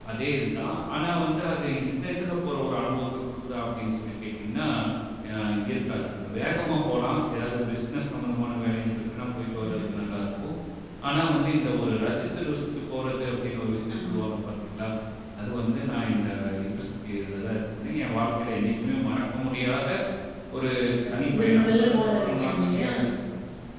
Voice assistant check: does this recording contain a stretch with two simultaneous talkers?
Yes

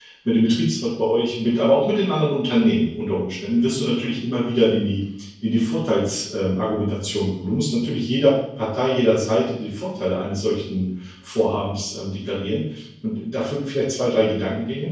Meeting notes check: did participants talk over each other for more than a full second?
No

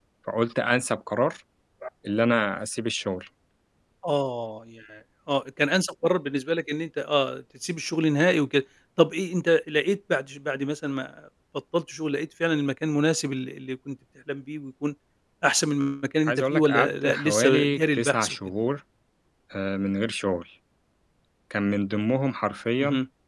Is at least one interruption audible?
Yes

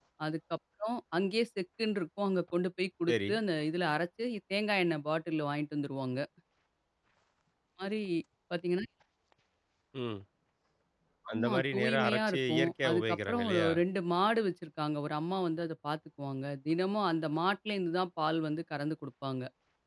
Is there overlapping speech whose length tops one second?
Yes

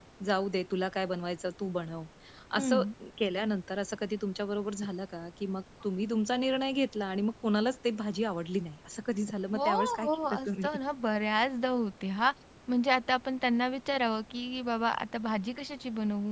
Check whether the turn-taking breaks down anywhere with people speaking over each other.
Yes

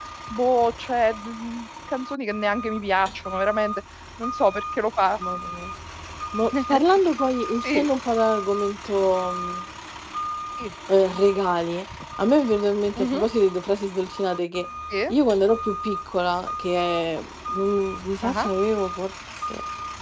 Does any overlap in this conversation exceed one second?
No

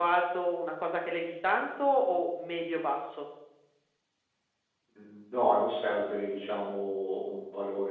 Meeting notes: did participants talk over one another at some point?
No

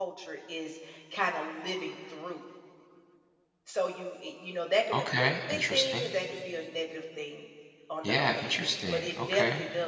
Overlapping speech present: Yes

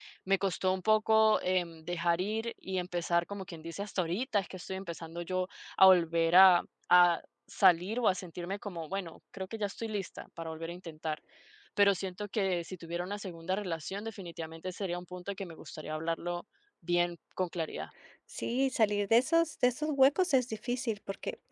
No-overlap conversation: Yes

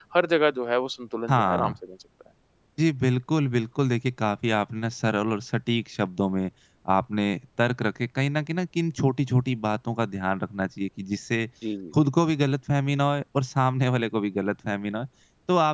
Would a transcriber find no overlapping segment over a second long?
Yes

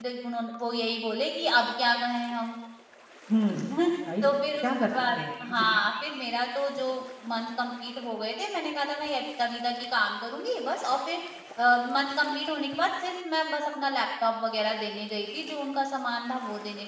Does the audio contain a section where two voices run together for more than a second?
Yes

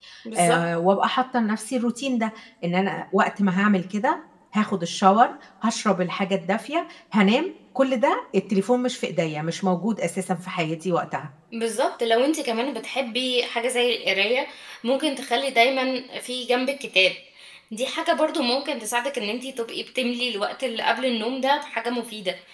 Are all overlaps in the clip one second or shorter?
Yes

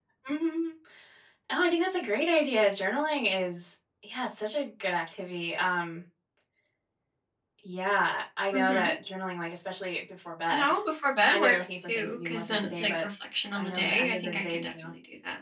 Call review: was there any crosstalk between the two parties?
Yes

